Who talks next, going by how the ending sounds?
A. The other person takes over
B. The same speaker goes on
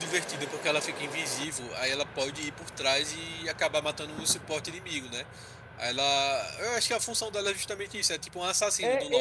A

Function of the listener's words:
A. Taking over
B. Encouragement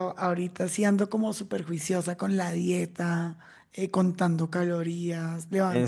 B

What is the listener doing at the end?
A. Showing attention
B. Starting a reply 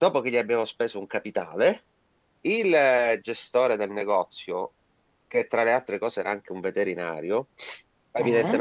A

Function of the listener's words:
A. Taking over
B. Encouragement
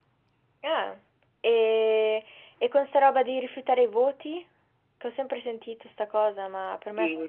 A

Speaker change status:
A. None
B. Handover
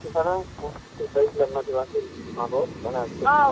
B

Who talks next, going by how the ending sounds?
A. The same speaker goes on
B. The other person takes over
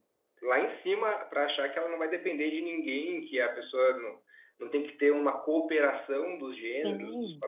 B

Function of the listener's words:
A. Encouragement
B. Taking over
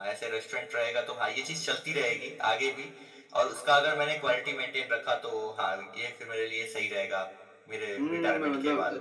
B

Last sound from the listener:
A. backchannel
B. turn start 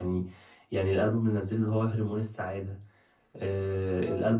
A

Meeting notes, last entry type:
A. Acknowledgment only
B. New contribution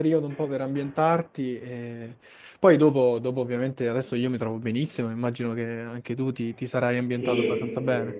B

